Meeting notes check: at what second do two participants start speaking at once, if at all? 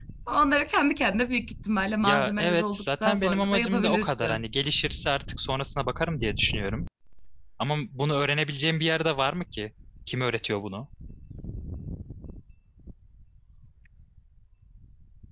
2.0 s

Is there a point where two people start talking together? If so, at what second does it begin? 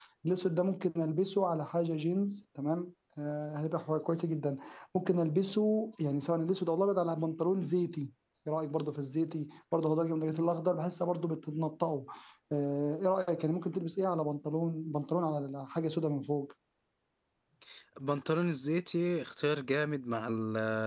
none

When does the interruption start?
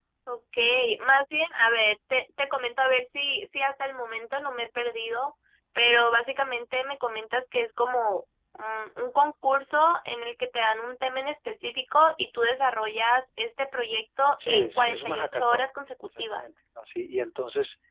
14.4 s

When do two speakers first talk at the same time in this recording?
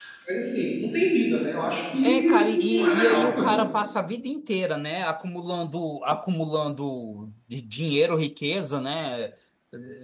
2.0 s

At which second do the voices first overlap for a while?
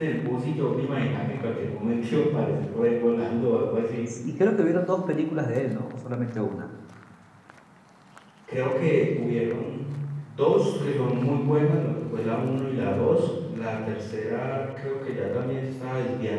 none

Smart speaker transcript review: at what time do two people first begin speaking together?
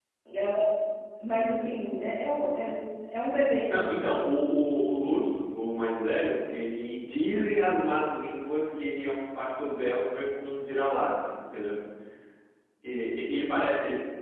none

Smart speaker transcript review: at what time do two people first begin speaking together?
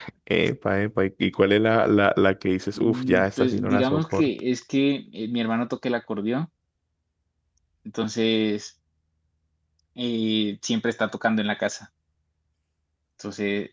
2.8 s

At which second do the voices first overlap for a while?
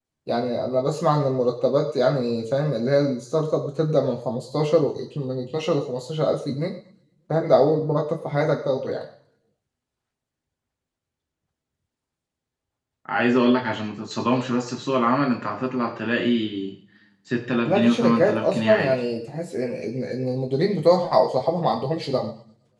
17.6 s

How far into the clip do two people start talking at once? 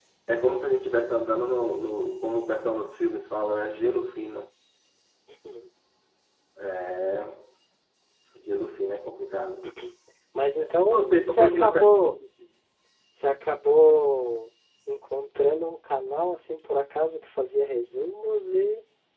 10.6 s

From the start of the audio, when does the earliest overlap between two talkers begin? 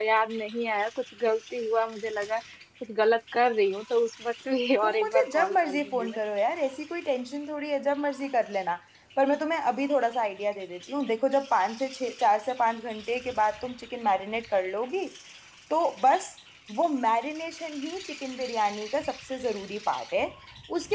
4.8 s

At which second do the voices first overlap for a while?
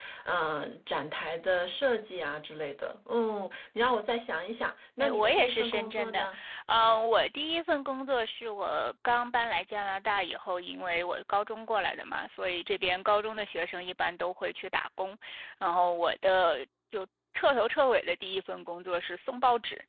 5.0 s

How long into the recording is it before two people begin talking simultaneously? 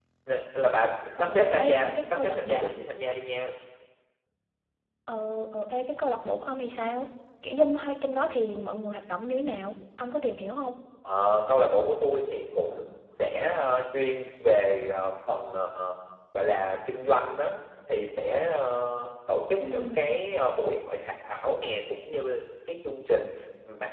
1.2 s

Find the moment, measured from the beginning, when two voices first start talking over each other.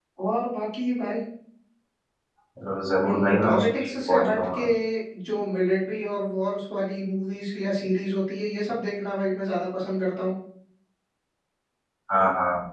3.0 s

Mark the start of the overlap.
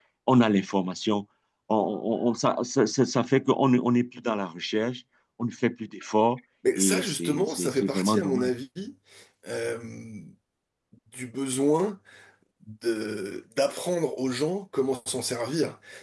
6.6 s

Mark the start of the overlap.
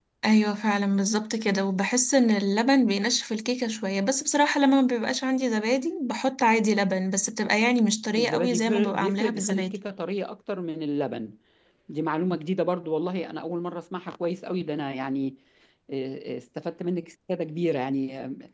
8.1 s

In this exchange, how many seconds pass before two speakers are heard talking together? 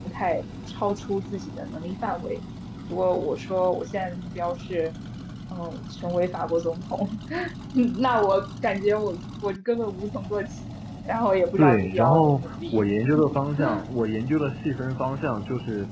11.6 s

